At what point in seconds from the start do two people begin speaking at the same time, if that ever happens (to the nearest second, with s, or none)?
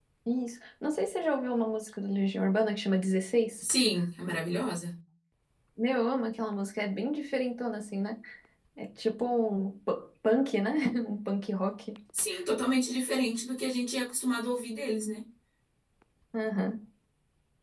none